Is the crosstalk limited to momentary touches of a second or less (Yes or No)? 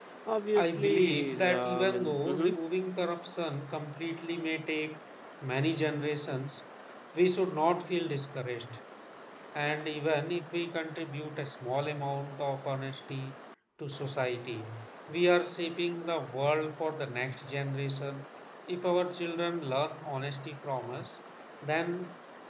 No